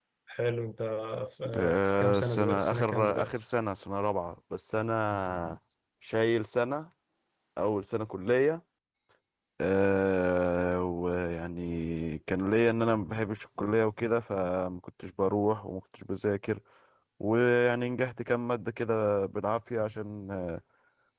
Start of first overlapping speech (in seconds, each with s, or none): 1.6 s